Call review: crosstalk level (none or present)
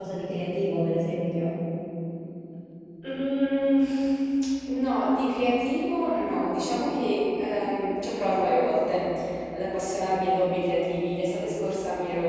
none